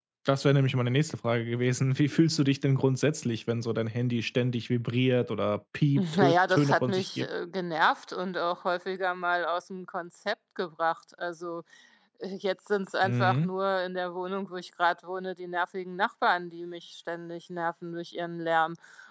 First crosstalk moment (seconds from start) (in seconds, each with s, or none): 6.0 s